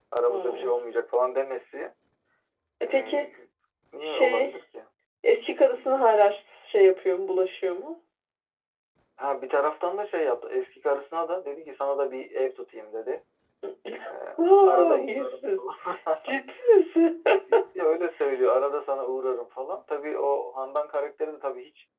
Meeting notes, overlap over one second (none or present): present